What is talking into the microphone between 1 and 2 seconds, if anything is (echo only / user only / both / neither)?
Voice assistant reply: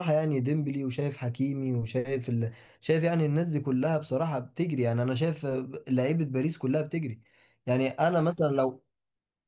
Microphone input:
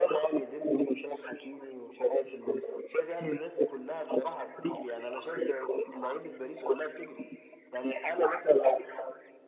echo only